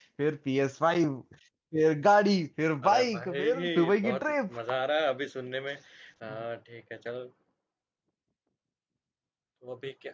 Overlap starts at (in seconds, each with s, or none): 2.8 s